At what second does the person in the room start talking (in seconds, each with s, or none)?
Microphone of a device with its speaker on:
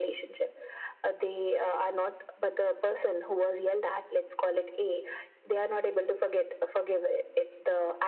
none